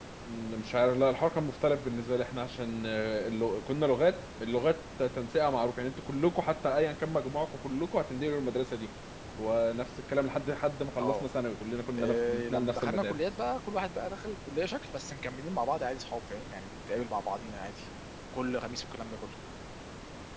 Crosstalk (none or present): present